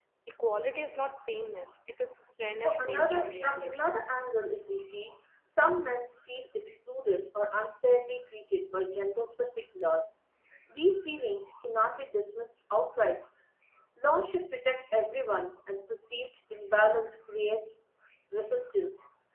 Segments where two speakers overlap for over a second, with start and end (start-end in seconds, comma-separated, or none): 2.6-3.9